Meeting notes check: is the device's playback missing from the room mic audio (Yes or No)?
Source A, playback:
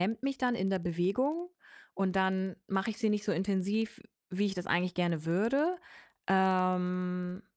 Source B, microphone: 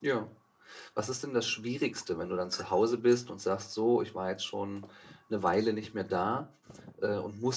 Yes